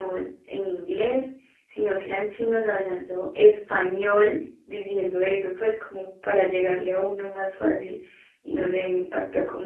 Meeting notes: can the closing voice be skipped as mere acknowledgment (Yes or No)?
Yes